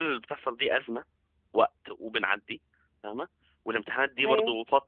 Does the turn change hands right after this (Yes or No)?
No